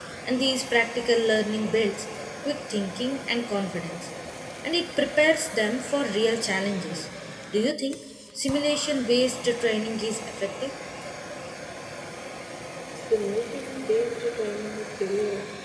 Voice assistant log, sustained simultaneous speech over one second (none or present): none